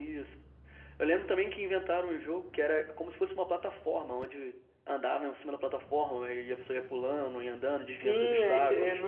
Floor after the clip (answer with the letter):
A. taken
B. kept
A